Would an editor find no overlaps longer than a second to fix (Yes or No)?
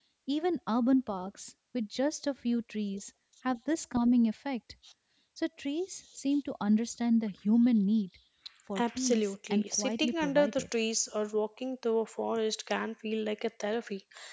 No